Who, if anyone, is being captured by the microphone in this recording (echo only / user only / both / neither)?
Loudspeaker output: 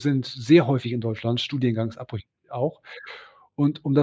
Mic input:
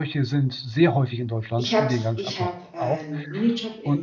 both